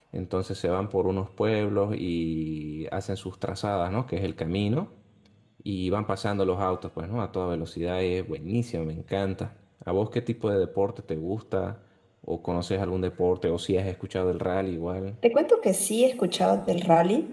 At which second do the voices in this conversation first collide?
none

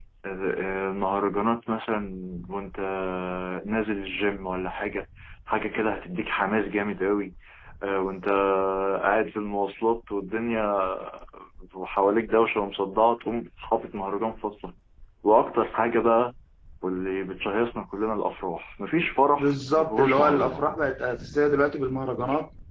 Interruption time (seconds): 19.4 s

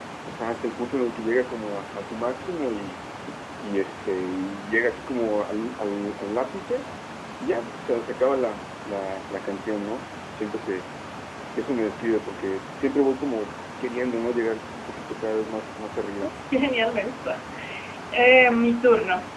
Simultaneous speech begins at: none

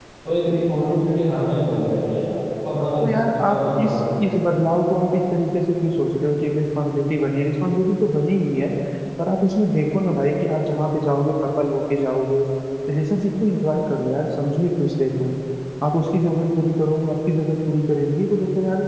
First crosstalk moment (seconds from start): 3.0 s

